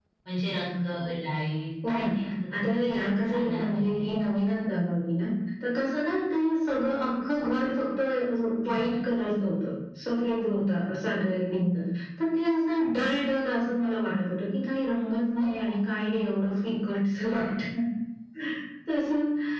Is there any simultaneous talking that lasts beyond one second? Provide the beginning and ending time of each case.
2.6-4.1

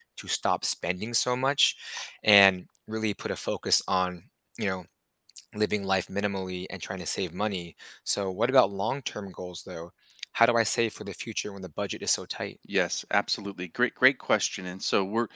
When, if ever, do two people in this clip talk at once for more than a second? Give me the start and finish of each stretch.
none

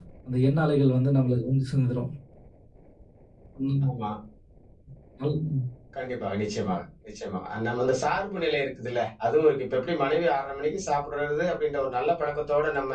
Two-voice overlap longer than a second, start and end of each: none

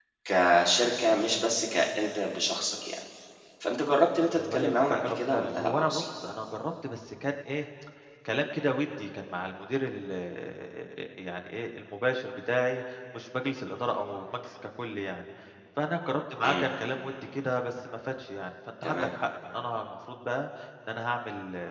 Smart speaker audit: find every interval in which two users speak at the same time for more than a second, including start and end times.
4.3-6.1

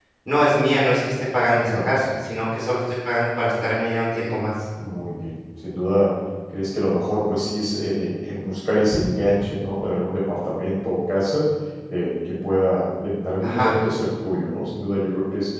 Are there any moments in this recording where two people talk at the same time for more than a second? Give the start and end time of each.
none

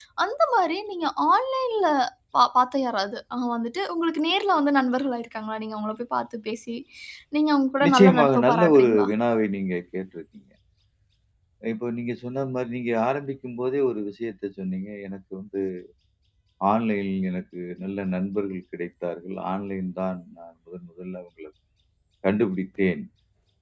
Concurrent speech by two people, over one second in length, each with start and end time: 7.8-9.1

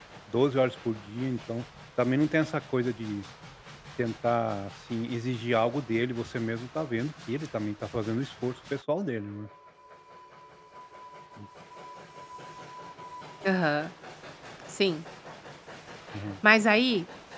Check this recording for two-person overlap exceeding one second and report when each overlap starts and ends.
none

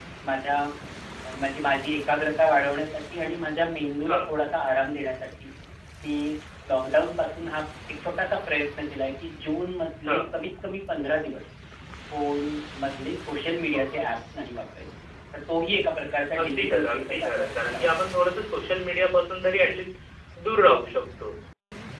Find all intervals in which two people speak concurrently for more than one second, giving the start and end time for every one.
16.4-17.9

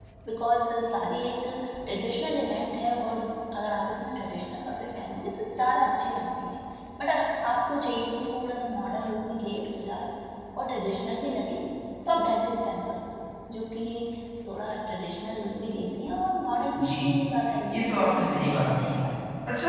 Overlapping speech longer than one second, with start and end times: 17.7-19.0

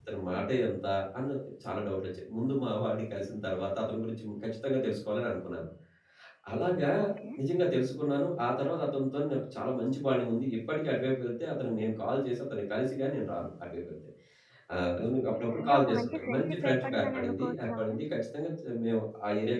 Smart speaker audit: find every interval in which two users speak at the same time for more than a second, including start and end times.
15.4-18.0

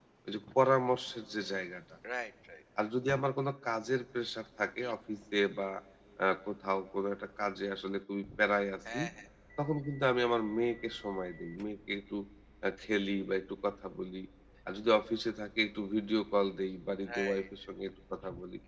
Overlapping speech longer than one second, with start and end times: none

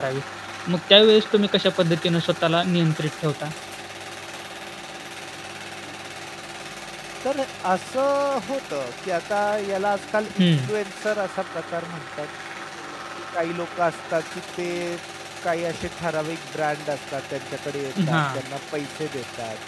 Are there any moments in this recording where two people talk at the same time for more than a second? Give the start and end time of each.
none

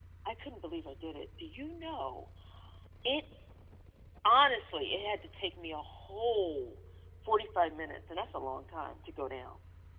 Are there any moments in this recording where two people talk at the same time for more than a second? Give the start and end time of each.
none

